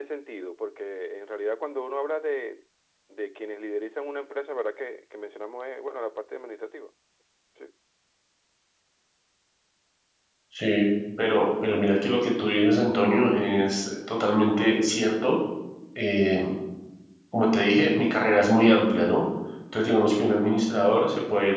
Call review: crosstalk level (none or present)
none